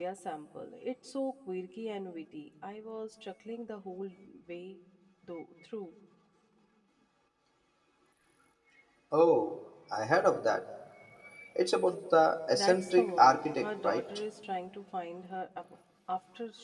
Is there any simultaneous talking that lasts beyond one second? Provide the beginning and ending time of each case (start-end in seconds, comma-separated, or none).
12.5-14.1